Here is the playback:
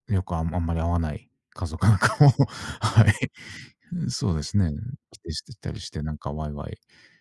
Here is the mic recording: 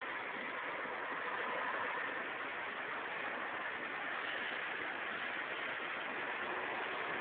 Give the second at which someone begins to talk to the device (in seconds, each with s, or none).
none